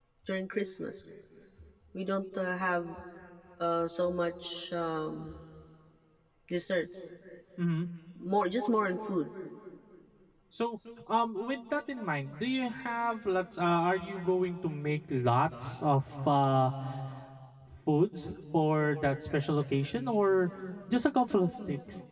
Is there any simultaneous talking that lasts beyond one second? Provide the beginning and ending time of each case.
none

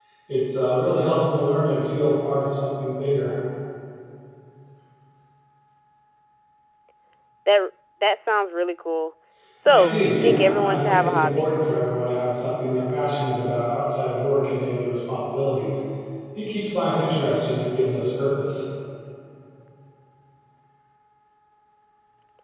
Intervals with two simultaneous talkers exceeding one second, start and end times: 9.7-11.5

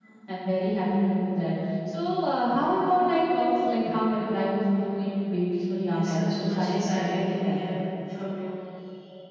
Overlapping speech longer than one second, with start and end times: 5.9-7.5

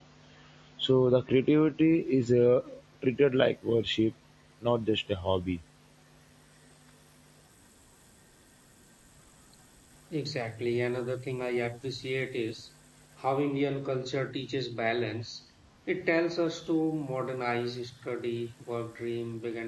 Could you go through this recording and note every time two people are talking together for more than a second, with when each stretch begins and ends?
none

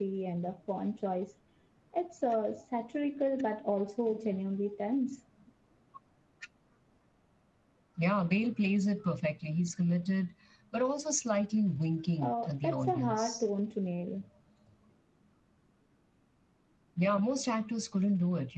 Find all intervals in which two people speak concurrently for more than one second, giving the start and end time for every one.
12.2-13.4

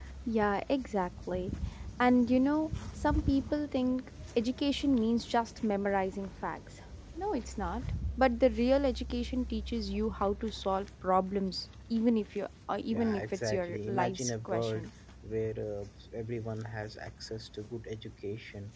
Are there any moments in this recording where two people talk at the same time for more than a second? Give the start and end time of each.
12.9-14.9

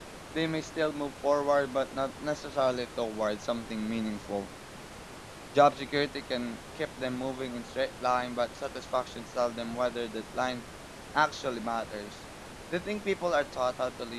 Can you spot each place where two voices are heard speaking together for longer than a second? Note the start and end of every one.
none

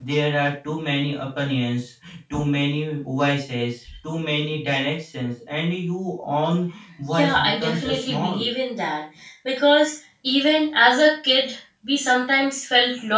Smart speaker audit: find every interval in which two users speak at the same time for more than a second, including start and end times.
7.1-8.5

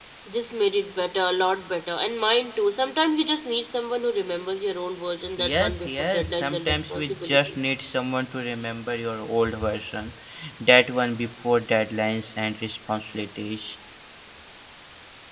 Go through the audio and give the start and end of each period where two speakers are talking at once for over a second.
5.4-7.5

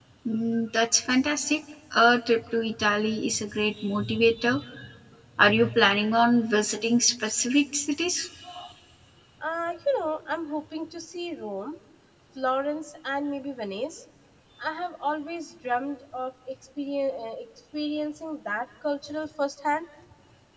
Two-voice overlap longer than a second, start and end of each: none

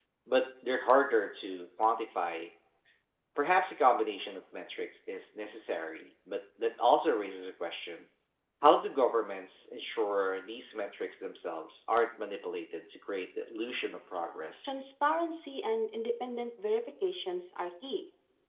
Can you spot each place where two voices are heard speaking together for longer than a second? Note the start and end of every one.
none

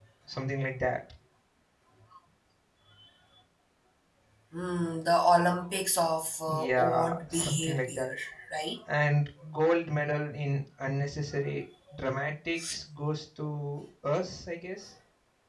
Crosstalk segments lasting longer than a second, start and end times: 6.5-8.1

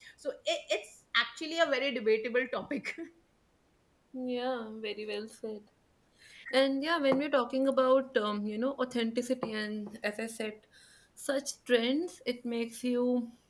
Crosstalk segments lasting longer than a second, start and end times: none

